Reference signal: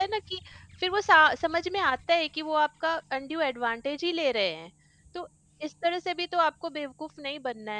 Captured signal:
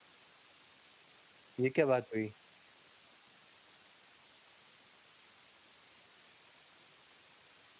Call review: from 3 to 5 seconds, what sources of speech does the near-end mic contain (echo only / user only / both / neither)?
neither